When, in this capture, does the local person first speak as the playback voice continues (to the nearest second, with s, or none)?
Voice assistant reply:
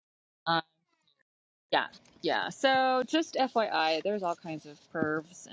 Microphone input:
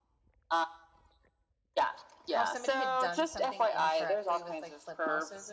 2 s